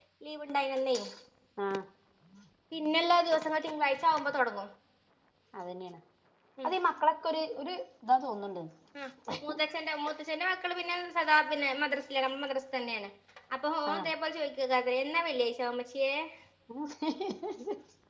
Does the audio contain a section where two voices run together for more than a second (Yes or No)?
No